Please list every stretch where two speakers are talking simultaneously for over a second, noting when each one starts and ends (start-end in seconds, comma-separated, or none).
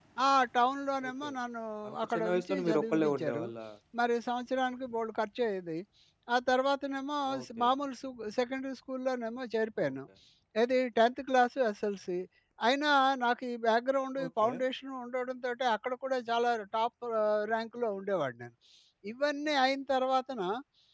2.0-3.4